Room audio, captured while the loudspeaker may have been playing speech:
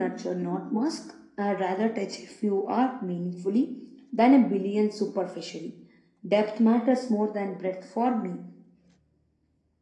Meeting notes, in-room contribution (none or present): none